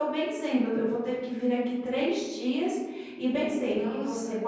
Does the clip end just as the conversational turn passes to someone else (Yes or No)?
No